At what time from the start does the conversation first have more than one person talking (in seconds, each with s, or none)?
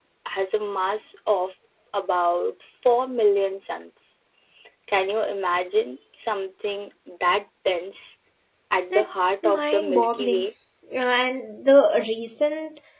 8.9 s